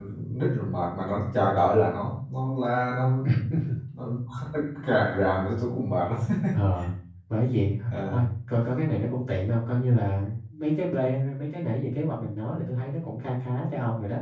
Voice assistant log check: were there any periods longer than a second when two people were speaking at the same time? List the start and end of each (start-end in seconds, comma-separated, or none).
none